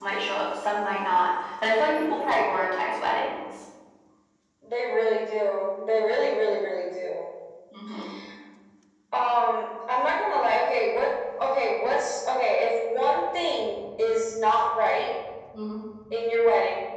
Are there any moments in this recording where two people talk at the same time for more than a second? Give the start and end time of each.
none

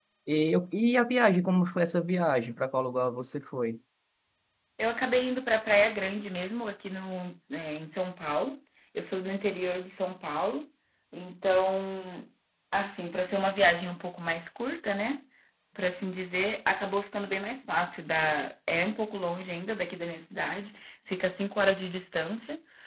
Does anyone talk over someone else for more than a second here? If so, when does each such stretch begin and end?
none

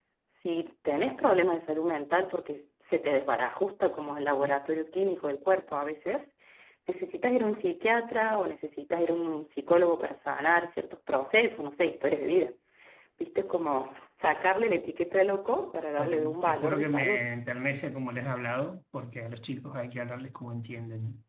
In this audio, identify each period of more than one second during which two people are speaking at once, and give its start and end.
16.0-17.2

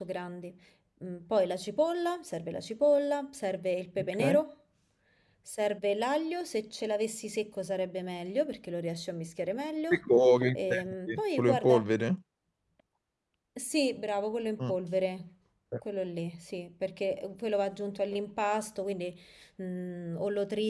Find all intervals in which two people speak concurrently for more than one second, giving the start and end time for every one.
10.5-11.8

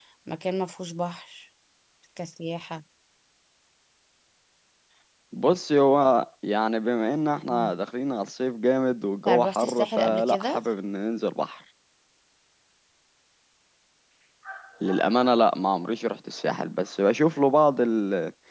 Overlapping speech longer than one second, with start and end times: 9.2-10.6

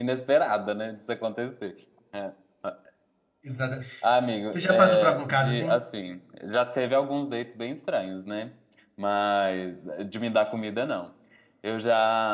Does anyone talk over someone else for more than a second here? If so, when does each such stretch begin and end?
4.5-5.8

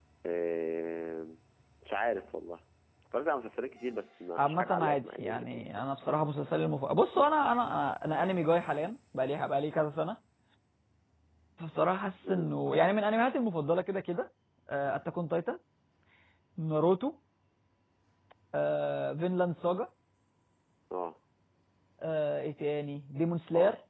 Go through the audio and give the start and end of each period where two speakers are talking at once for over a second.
4.4-5.8

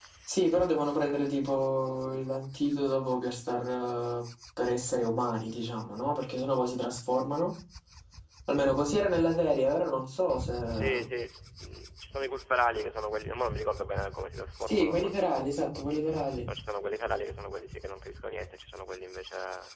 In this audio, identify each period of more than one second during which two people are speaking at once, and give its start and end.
14.6-15.9

